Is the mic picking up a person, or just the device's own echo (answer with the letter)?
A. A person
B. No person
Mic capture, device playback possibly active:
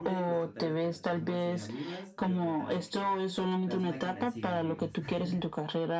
A